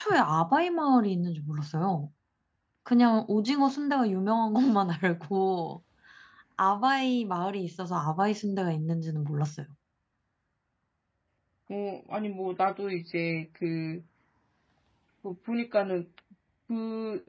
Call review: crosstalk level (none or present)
none